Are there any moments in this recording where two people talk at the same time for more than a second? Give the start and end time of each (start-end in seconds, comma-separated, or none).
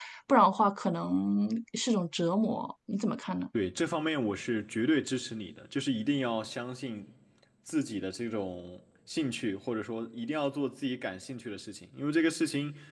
none